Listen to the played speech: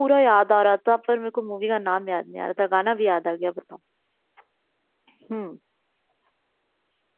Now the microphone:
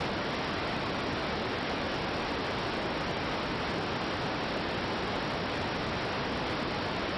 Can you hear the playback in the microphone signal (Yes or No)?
No